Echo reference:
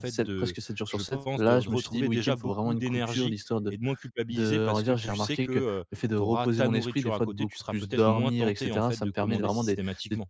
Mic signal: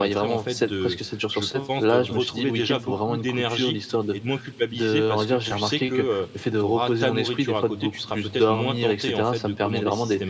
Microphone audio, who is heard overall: echo only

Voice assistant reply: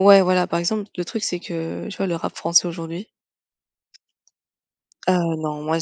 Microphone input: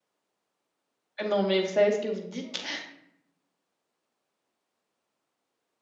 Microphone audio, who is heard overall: user only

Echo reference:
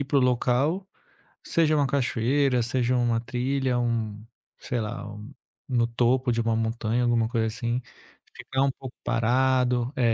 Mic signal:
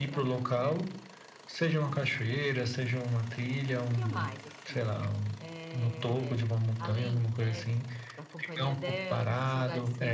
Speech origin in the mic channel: both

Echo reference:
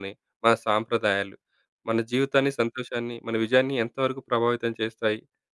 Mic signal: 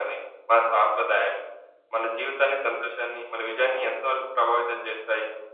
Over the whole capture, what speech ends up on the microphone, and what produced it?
echo only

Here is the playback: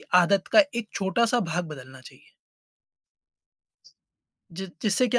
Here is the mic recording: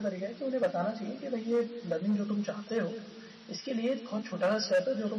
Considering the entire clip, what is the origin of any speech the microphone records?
user only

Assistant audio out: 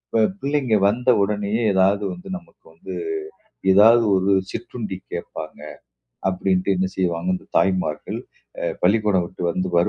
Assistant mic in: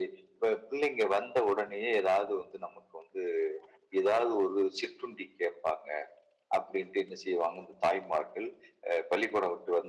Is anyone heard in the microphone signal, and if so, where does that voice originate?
echo only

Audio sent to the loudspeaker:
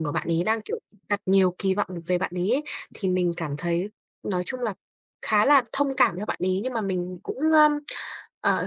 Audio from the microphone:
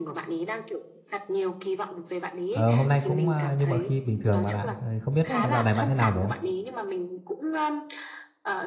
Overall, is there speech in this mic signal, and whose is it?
both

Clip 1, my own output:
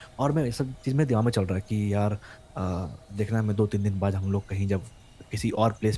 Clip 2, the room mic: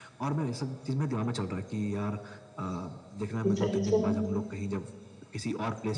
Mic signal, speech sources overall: both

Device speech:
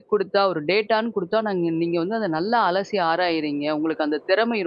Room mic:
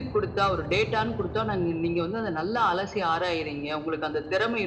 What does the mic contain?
echo only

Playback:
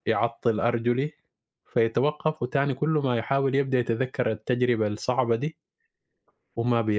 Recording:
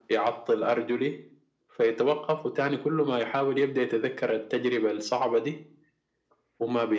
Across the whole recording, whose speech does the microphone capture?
echo only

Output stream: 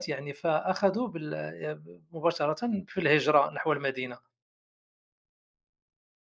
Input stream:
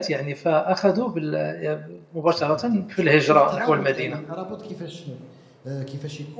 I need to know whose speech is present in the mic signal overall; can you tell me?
both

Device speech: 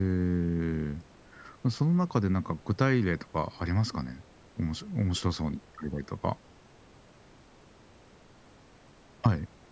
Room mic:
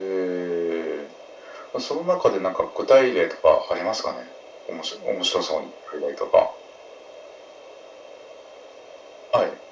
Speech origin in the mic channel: echo only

